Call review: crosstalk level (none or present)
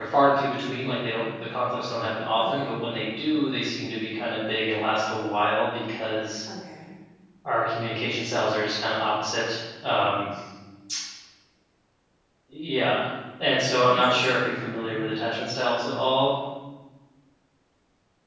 present